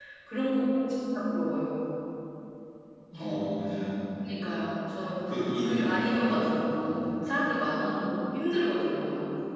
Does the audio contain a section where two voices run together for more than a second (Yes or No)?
No